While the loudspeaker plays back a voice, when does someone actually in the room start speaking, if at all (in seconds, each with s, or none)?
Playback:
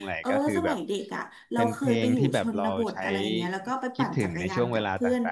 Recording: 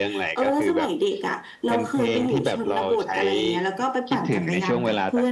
none